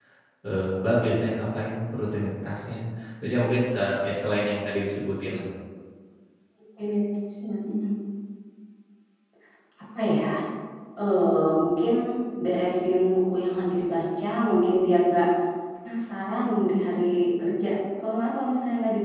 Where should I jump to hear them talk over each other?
none

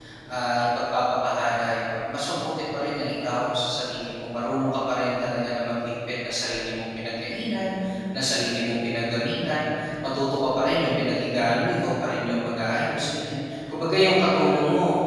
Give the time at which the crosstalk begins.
none

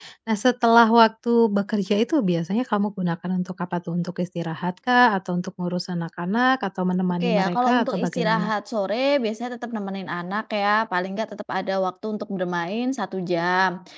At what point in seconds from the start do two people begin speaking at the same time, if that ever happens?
7 s

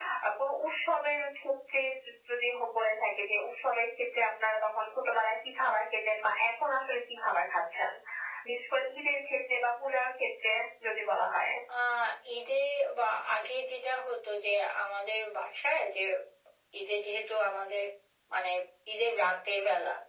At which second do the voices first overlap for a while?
none

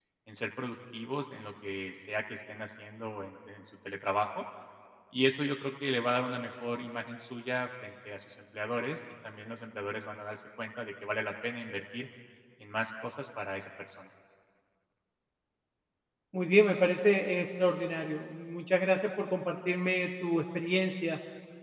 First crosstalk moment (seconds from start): none

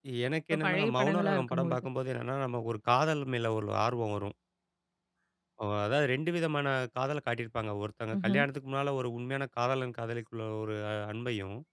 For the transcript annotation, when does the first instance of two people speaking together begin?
1 s

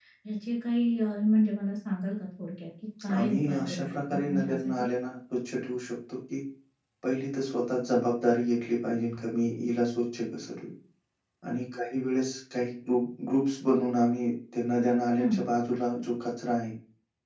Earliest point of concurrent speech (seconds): 3 s

